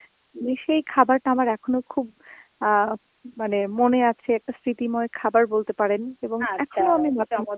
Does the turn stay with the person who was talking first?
No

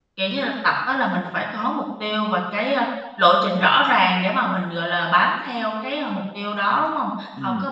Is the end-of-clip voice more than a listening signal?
No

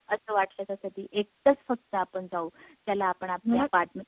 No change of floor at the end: Yes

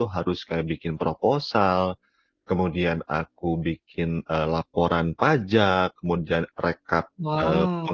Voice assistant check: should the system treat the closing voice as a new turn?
No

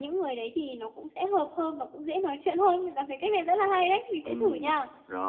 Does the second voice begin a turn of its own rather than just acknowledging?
Yes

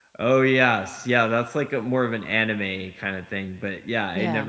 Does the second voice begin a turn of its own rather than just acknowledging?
No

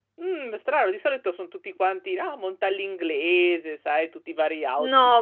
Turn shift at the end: Yes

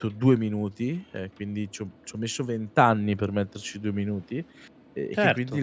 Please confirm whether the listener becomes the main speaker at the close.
No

